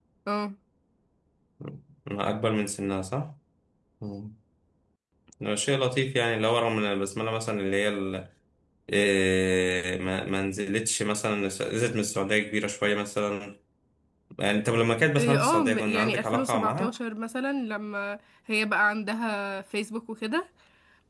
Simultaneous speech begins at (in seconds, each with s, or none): 15.2 s